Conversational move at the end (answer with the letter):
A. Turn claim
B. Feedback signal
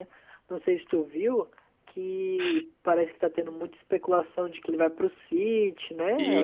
A